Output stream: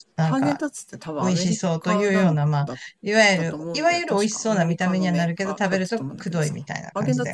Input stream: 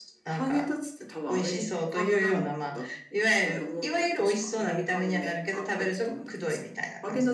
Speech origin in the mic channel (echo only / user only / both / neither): echo only